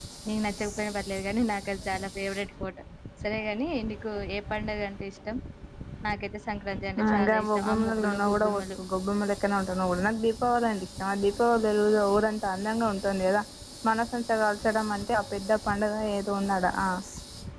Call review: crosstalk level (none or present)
present